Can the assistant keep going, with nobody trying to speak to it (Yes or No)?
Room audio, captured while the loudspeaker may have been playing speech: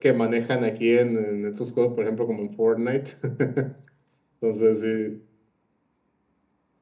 No